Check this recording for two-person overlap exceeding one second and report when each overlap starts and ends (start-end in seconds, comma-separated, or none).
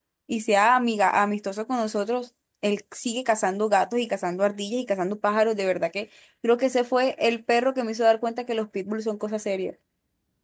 none